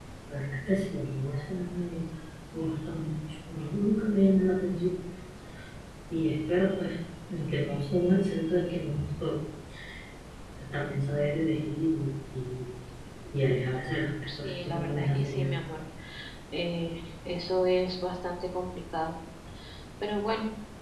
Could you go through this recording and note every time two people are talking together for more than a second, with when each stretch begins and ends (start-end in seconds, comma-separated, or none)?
14.3-15.5